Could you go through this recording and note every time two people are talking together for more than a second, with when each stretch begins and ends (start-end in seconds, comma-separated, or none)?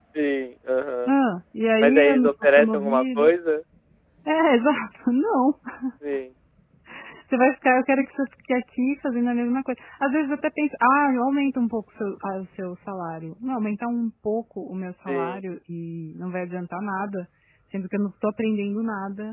1.8-3.3